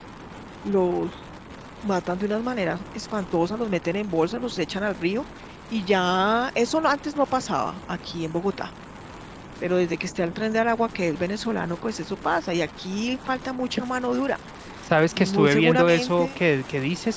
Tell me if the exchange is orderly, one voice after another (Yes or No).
No